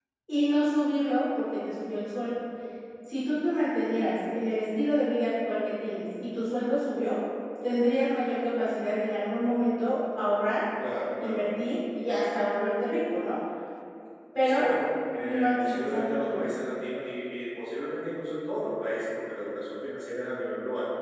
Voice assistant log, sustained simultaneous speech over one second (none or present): present